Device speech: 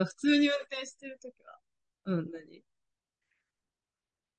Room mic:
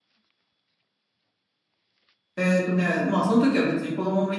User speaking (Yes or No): Yes